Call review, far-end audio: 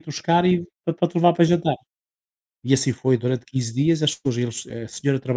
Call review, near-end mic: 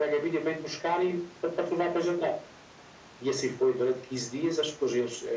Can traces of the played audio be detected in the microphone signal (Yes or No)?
Yes